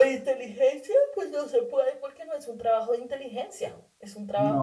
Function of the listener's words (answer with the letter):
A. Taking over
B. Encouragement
A